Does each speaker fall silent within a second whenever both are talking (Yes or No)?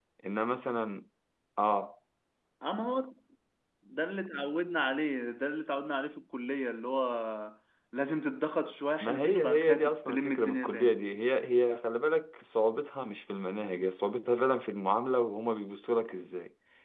No